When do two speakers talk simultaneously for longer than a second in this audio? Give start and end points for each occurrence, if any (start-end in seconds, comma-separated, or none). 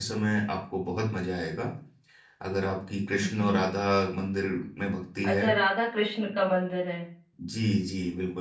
none